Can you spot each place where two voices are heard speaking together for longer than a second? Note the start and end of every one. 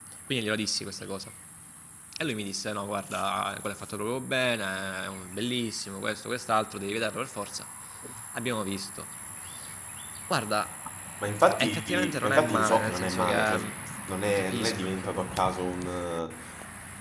11.6-13.6

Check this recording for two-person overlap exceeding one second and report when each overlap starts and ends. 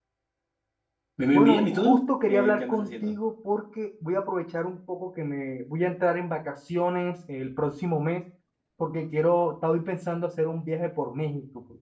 1.3-3.2

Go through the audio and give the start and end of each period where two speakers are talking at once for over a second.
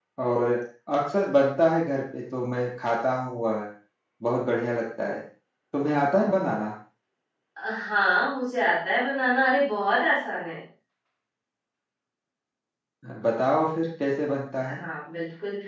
none

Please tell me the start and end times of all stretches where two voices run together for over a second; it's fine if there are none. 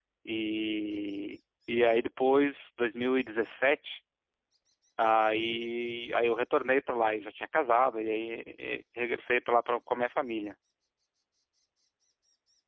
none

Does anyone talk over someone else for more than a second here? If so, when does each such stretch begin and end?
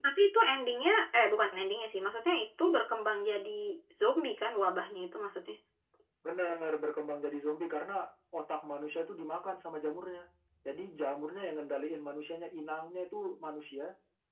none

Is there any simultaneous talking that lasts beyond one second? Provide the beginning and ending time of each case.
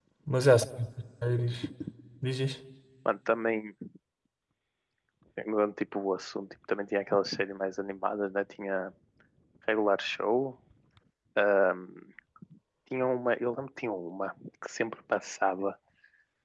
none

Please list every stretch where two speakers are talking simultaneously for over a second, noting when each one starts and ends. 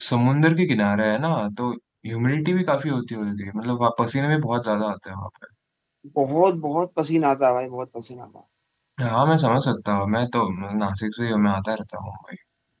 none

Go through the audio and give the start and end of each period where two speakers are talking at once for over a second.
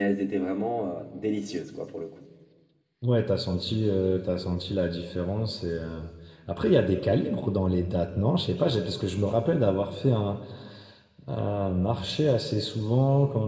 none

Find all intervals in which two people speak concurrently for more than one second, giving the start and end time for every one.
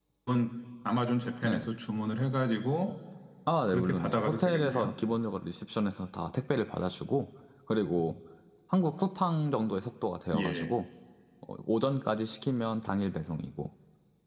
3.7-4.9

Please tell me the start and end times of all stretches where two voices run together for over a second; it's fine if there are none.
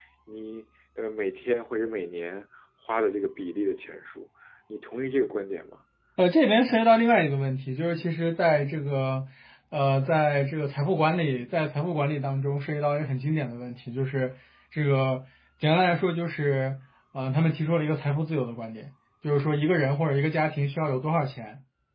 none

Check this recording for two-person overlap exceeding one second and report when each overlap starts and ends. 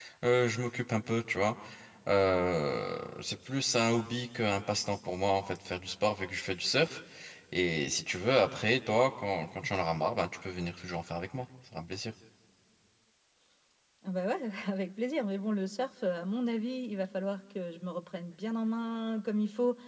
none

